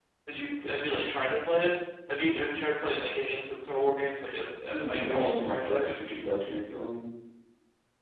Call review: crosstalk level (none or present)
present